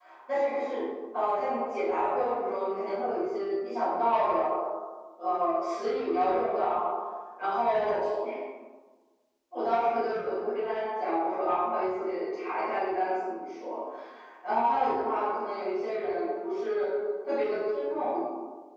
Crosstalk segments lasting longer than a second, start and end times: none

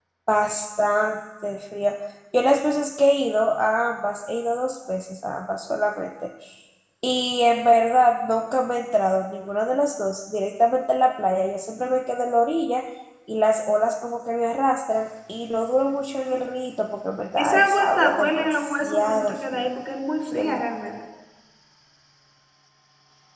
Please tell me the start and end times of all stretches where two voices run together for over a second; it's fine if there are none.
17.4-19.7

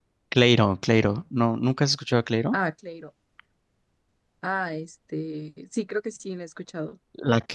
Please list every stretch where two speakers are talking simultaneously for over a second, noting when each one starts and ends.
none

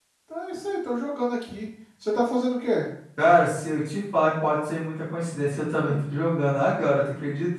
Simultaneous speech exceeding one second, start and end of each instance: none

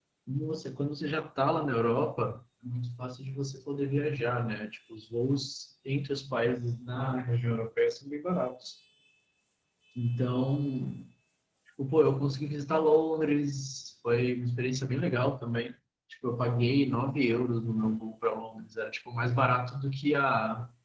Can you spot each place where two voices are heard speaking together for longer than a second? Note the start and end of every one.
none

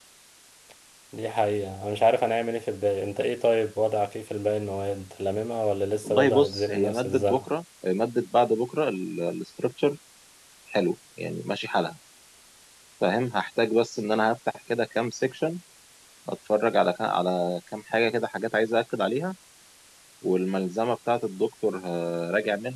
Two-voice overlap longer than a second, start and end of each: 6.0-7.4

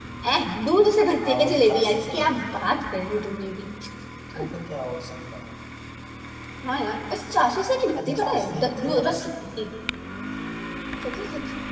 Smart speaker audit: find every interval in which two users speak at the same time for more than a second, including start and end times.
1.2-2.6, 8.0-9.2

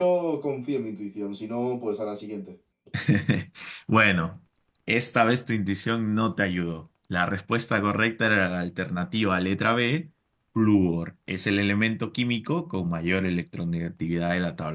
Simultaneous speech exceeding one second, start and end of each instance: none

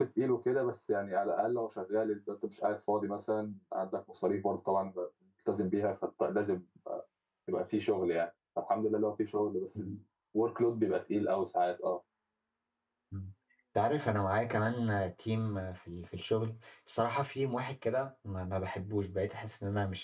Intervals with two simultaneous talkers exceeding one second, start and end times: none

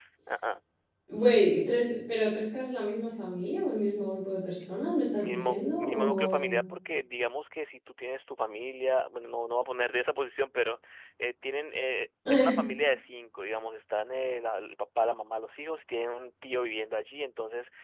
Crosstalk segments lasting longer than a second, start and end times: 5.2-6.6

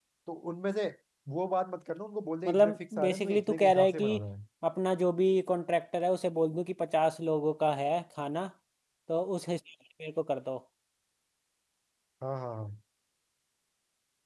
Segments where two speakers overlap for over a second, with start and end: 2.4-4.1

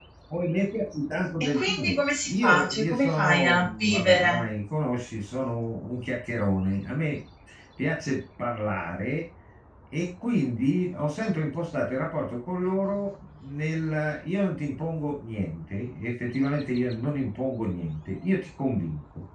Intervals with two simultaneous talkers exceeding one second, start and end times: 1.4-4.4

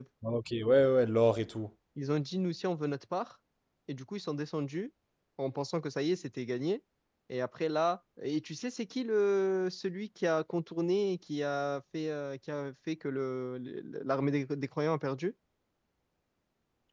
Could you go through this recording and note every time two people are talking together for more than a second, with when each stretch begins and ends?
none

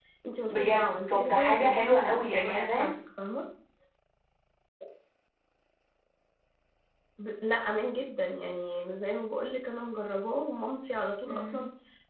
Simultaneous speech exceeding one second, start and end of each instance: 0.5-2.9

